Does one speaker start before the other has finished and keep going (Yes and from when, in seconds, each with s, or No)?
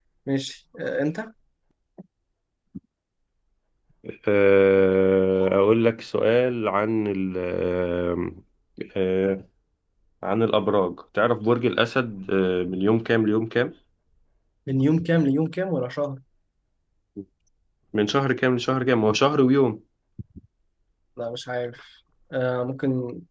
No